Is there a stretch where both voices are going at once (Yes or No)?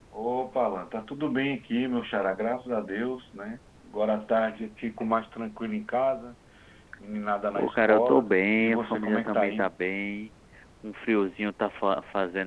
Yes